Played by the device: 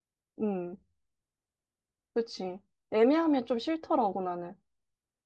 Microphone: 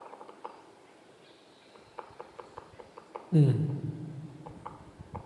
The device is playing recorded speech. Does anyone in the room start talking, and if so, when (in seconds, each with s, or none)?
3.3 s